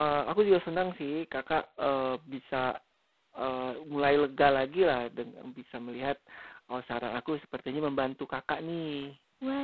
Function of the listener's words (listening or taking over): taking over